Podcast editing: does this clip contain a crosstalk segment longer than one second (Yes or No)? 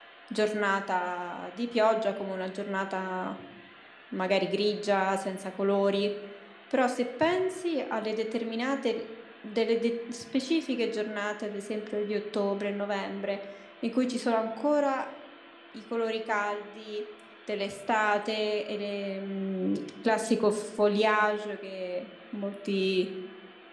No